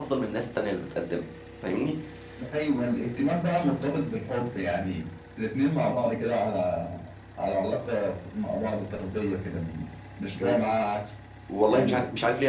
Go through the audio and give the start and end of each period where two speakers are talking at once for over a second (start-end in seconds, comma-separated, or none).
none